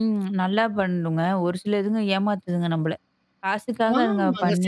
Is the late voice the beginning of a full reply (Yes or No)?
Yes